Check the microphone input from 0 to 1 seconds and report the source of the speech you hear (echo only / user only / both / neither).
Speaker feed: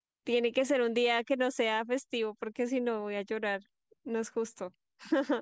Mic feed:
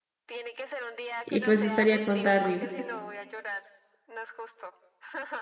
echo only